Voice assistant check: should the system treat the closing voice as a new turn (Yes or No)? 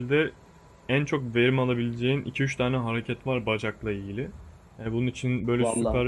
No